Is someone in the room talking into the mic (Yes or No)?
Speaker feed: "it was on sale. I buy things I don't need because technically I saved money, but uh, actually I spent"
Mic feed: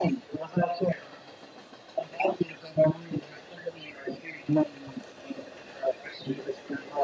No